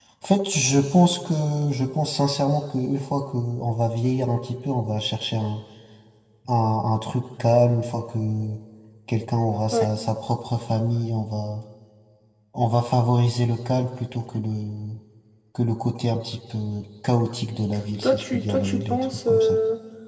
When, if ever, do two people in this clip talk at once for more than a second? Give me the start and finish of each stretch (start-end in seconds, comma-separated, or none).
18.0-19.5